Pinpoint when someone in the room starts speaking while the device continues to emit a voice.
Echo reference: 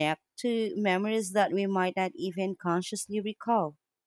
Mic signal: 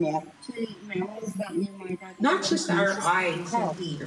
2.2 s

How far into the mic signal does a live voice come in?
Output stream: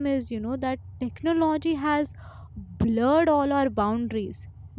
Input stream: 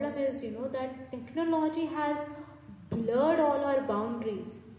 none

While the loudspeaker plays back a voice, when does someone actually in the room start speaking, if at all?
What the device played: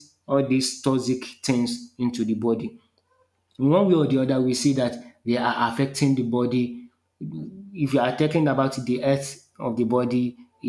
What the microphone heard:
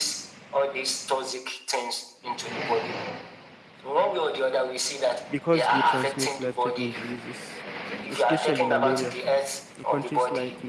5.3 s

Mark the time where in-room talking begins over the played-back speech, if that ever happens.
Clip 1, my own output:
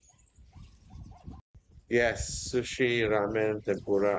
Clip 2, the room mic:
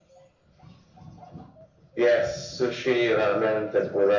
none

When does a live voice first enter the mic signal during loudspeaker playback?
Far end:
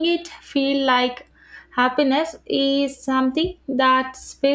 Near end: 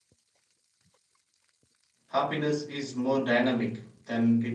2.1 s

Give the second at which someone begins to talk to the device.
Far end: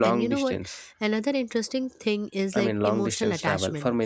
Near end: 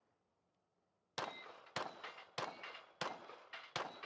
none

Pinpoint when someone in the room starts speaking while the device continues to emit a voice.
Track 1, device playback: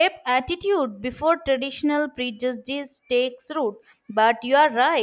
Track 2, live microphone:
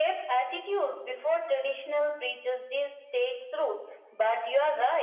none

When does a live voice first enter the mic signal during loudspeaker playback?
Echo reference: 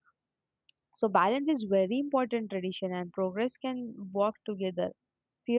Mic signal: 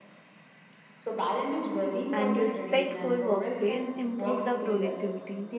2.1 s

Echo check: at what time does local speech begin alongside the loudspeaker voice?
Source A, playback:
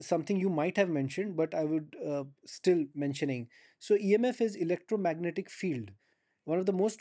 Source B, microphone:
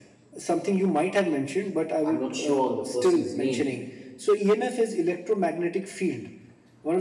2.0 s

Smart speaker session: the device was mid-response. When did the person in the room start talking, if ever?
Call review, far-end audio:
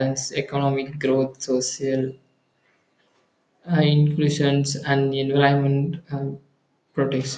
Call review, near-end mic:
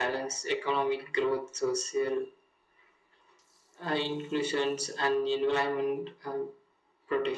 none

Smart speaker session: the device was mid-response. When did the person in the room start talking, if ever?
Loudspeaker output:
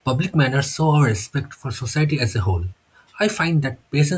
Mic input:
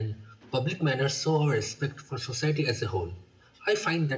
none

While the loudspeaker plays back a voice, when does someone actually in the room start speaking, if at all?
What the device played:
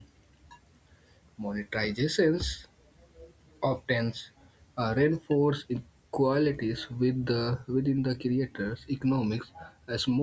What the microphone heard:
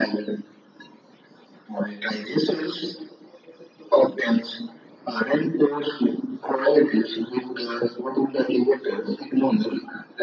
none

